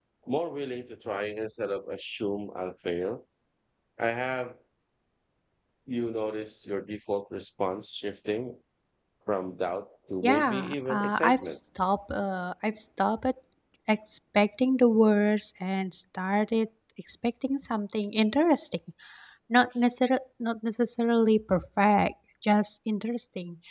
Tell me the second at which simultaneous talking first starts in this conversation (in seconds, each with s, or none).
10.2 s